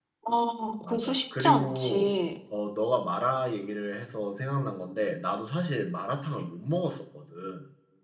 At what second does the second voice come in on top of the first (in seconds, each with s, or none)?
0.8 s